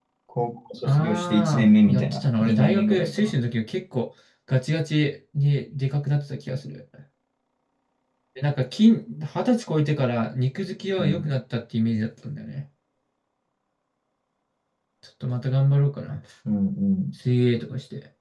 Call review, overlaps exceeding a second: present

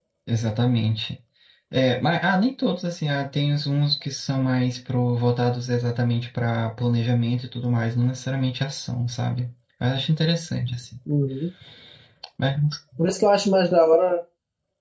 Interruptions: none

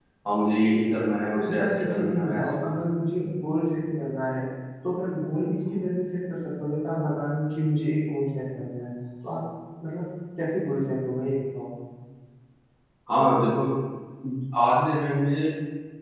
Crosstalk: present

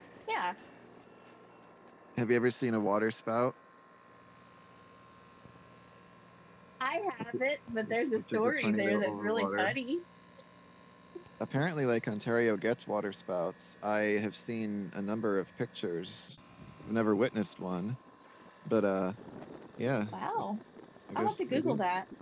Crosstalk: present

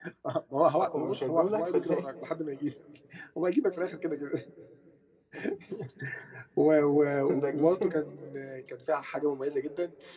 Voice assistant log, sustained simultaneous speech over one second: present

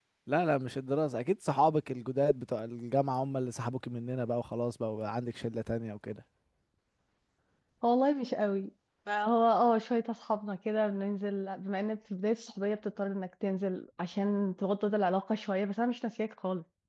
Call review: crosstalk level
none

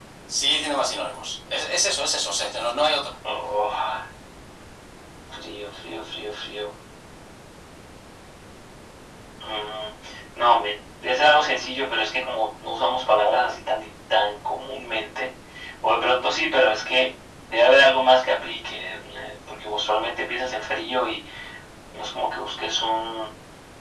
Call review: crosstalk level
none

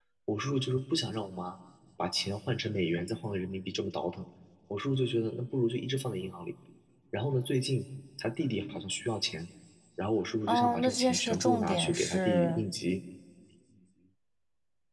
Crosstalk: present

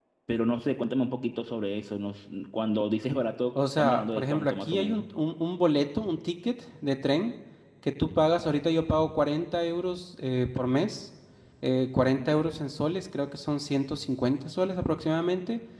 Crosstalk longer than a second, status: present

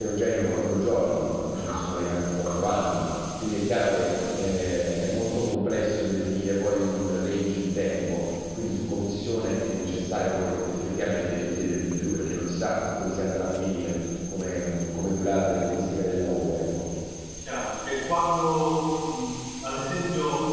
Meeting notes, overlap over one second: none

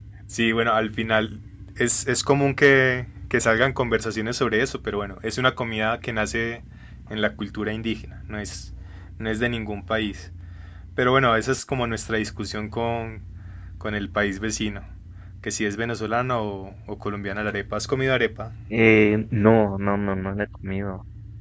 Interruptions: none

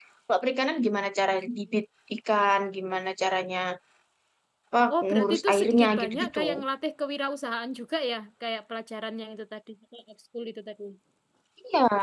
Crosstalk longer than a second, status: present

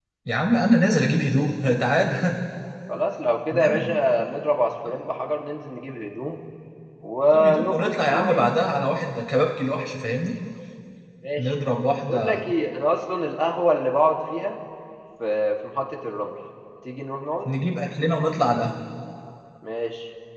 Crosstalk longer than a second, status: present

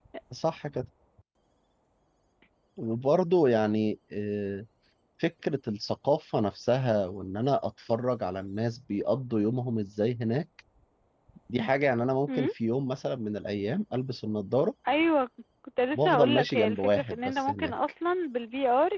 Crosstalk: present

